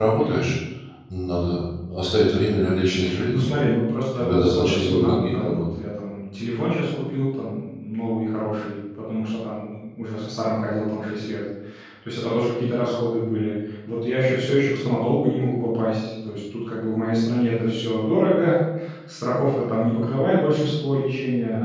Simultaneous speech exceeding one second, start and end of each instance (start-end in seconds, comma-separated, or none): 4.2-5.6